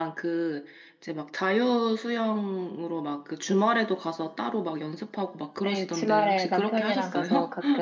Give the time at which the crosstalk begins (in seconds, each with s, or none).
5.6 s